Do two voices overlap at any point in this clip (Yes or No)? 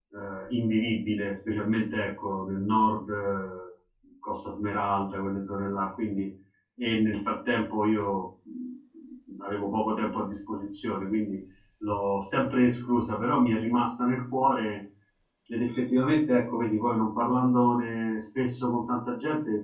No